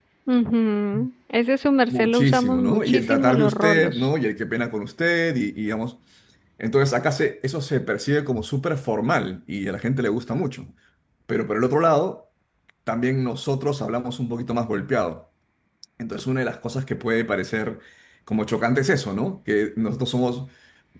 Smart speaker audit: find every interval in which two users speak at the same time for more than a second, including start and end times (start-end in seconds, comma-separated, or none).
1.9-4.1